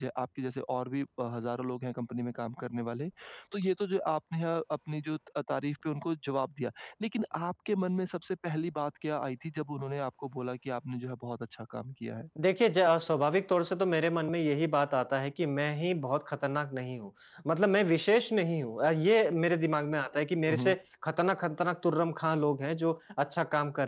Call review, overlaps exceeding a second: none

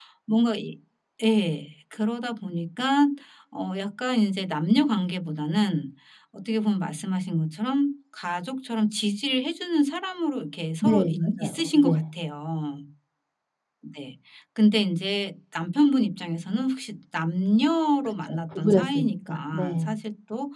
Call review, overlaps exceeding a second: present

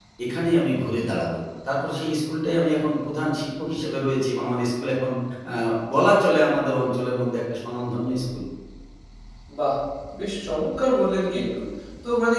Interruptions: none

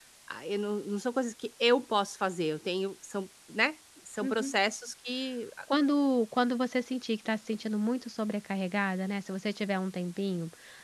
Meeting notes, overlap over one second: none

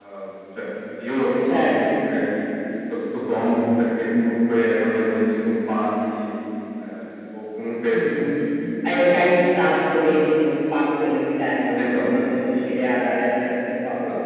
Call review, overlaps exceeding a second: none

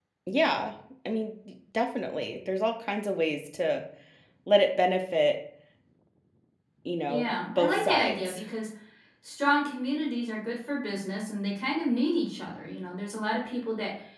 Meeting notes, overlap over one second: present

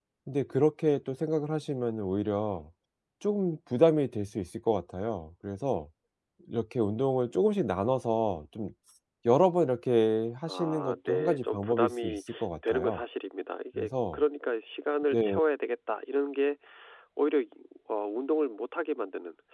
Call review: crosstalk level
present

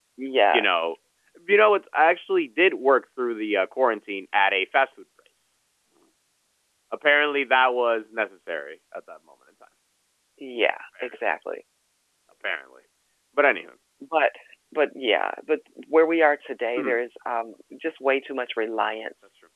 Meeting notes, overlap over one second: none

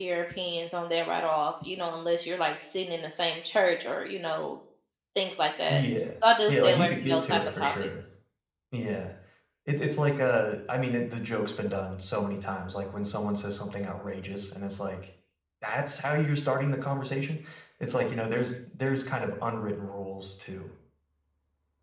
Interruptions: present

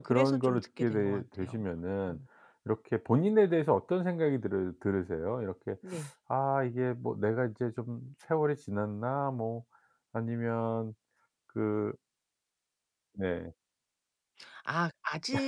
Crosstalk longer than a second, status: present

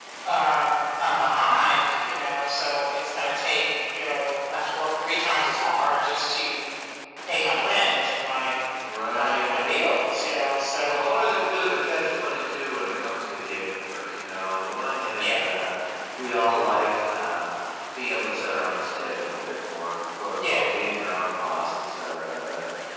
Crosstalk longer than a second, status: none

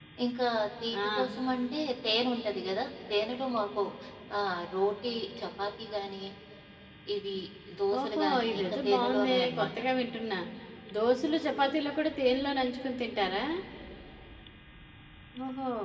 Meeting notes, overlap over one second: present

